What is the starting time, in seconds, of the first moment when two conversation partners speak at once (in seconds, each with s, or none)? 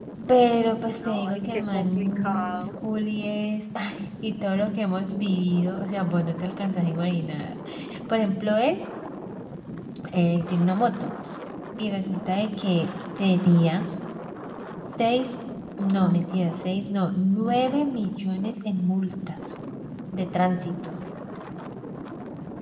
1.1 s